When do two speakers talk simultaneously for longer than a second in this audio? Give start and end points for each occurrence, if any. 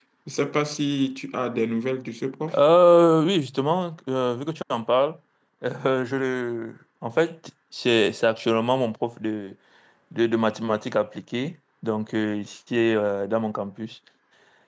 none

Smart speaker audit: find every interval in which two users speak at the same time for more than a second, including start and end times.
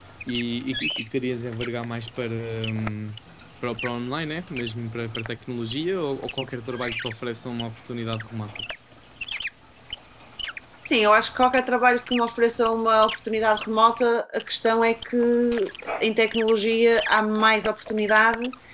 none

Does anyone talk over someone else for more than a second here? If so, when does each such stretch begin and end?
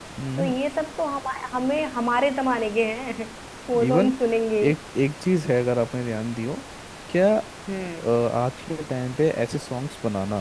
none

